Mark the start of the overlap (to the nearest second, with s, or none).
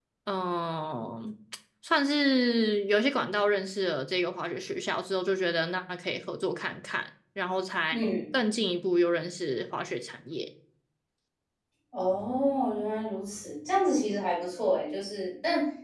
none